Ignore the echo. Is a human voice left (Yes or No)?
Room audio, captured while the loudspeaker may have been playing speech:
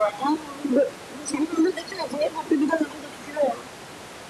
No